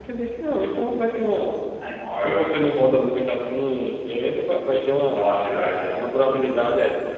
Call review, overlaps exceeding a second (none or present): none